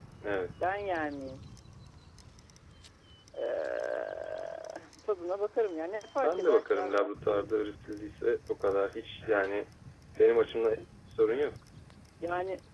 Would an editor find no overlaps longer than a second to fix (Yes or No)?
No